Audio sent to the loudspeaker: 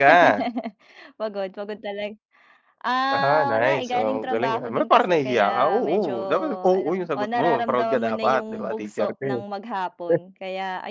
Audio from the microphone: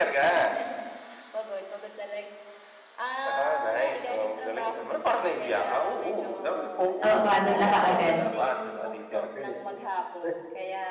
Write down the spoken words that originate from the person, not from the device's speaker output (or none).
Oo, pagod ka na kaagad.